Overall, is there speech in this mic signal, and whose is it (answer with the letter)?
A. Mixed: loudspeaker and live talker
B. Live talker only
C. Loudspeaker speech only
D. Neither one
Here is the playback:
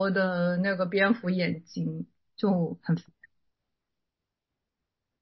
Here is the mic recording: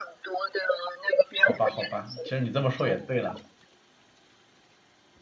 A